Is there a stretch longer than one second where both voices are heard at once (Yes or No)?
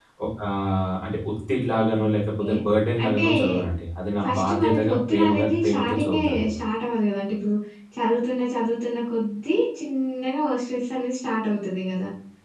Yes